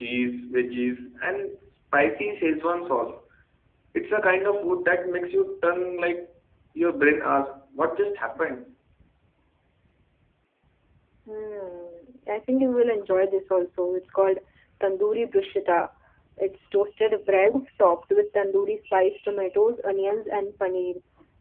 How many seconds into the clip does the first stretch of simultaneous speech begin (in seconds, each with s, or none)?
none